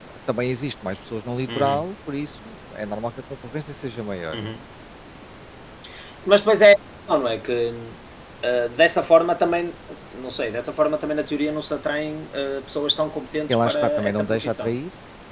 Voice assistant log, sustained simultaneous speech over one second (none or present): present